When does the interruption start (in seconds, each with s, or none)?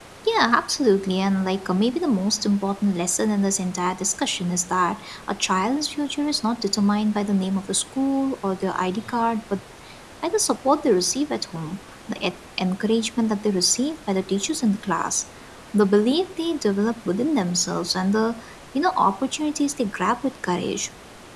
none